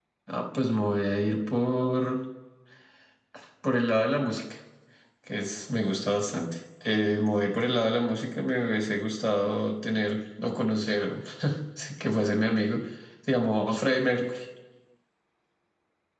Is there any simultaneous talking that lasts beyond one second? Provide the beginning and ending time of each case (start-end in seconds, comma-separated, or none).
none